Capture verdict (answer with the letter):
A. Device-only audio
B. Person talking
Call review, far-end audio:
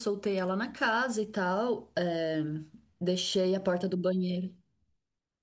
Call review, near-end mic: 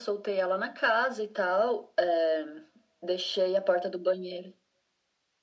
A